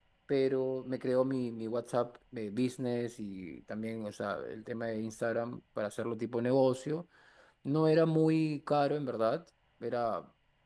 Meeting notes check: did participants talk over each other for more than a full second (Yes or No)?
No